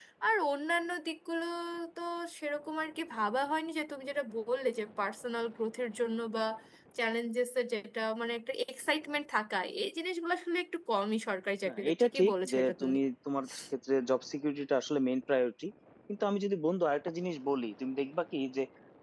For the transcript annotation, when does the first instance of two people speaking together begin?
11.6 s

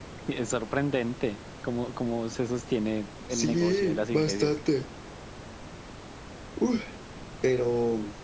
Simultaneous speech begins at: 3.3 s

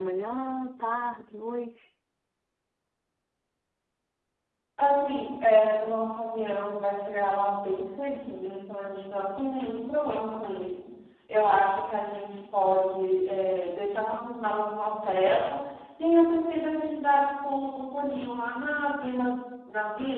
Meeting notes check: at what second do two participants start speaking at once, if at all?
none

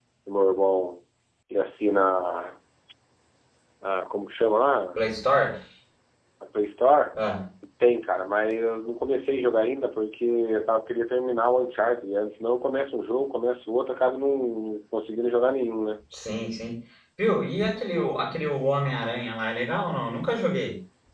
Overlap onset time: none

